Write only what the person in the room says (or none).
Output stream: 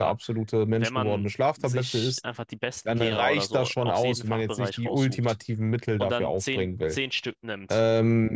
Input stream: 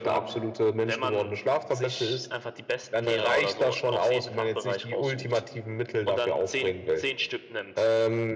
none